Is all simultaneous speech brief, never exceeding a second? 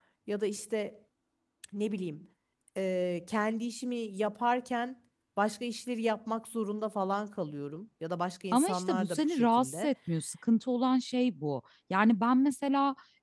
No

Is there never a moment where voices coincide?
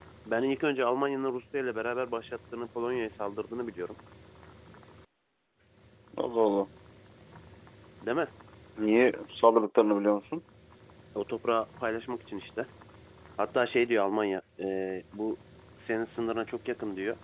Yes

